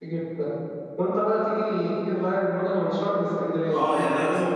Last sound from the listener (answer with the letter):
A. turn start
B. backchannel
A